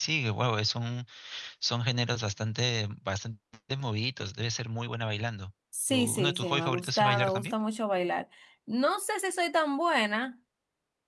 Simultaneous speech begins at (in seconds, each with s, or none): 5.7 s